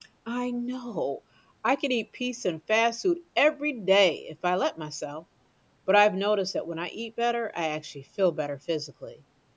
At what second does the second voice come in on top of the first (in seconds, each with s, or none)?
none